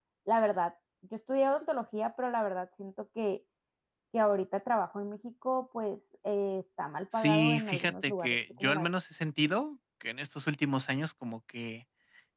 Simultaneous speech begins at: 7 s

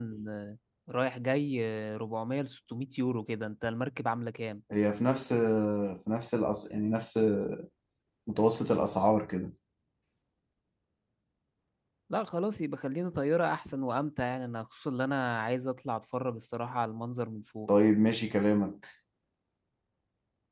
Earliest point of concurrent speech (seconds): none

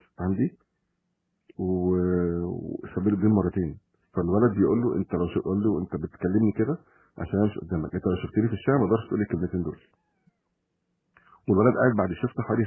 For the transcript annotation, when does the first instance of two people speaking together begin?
none

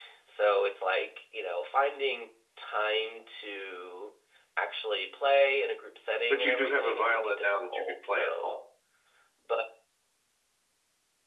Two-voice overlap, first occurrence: 6 s

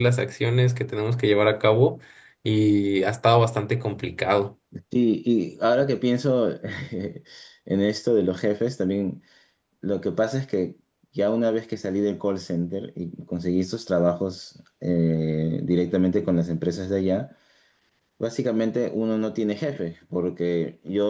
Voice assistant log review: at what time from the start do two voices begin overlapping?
none

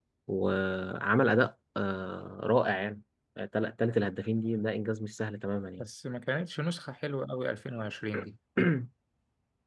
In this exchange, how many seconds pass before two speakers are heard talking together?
none

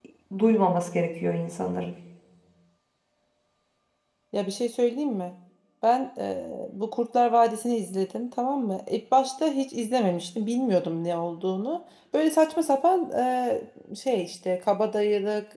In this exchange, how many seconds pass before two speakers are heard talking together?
none

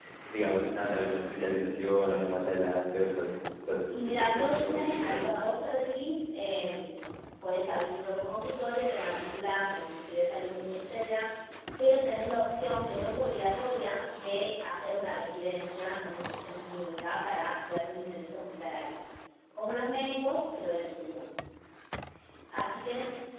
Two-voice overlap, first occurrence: 4 s

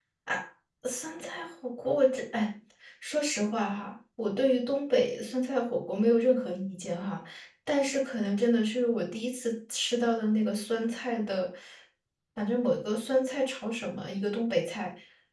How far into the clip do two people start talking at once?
none

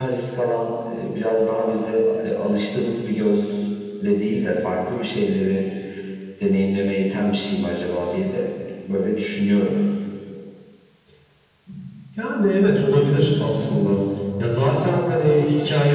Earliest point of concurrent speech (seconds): none

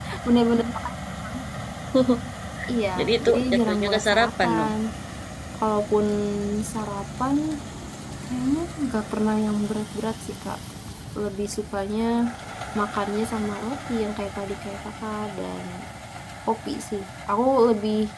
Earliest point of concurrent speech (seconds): 3 s

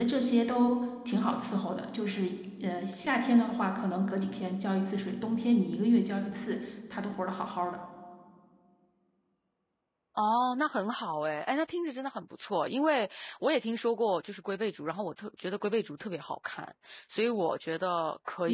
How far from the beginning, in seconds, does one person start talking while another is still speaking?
none

